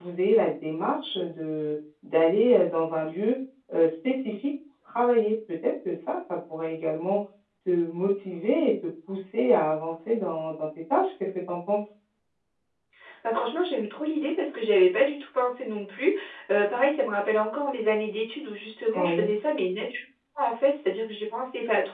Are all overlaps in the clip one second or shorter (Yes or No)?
Yes